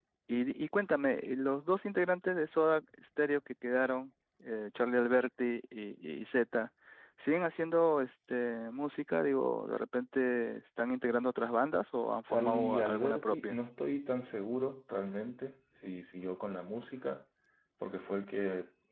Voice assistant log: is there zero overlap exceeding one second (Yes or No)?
No